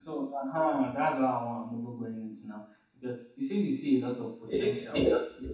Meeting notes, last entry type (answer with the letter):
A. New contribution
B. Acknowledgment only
B